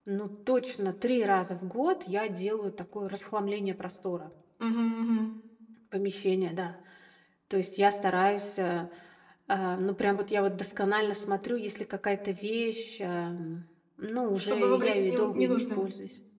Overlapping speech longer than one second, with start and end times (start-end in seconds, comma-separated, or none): 14.4-15.8